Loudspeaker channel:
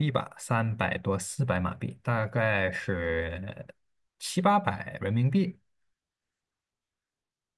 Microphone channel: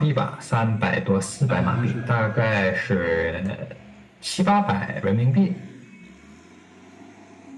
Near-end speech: present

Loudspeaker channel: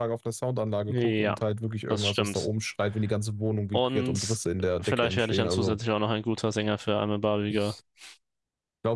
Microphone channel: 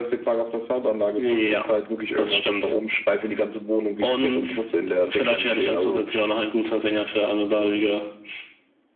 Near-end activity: none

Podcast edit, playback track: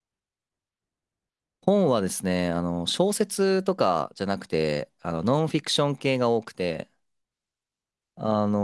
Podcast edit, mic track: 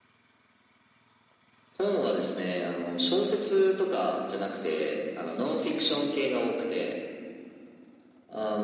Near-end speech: none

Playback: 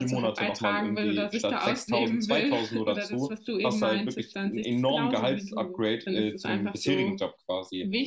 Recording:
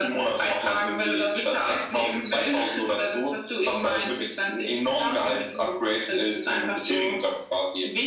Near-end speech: none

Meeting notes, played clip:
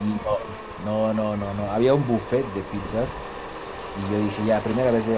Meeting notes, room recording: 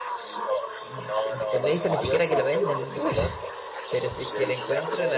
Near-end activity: present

